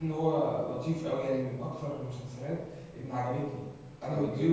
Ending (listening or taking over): listening